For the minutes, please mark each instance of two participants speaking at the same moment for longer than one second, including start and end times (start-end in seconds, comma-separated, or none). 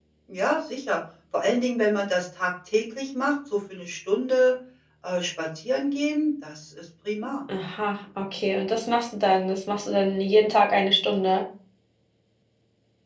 none